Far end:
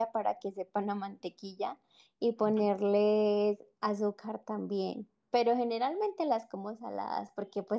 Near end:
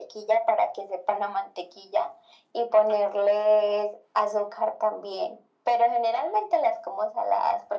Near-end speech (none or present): none